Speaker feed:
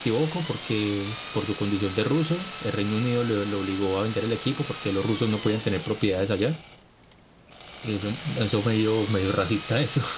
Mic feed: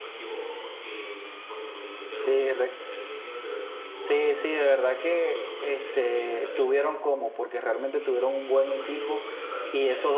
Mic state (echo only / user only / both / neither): both